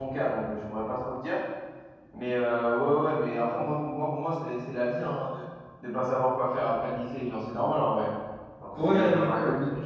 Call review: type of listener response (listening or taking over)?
taking over